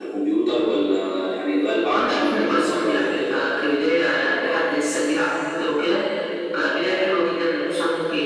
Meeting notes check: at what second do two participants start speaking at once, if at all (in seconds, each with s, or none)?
1.9 s